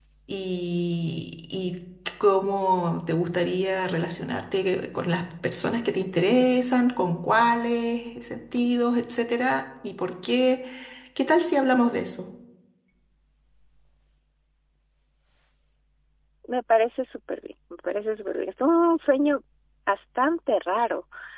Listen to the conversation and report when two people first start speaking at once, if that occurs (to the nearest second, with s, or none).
none